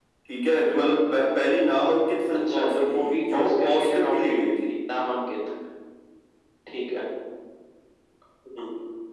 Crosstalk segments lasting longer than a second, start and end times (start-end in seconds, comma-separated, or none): 2.4-4.7